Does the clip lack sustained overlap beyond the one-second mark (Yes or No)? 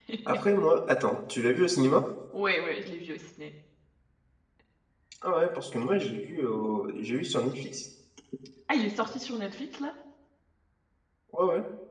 Yes